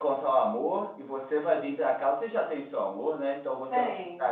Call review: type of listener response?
listening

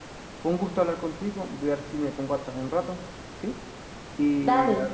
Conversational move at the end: listening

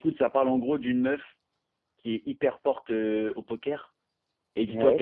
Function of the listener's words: listening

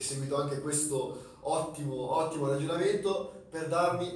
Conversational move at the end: listening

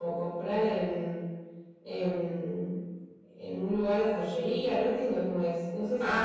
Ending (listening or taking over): taking over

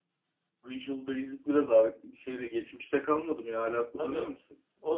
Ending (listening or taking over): taking over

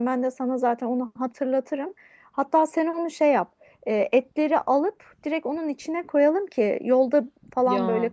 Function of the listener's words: listening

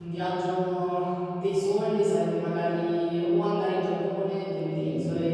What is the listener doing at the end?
listening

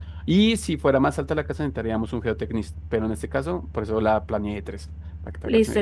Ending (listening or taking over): taking over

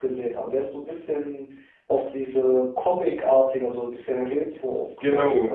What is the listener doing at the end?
taking over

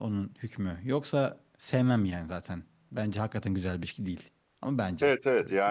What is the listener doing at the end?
taking over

